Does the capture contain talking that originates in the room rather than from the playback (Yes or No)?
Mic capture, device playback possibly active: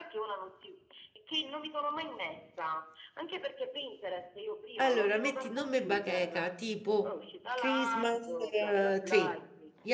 Yes